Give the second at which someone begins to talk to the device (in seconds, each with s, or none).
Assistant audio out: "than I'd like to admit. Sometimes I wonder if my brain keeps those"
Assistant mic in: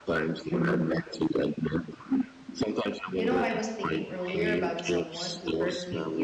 3.2 s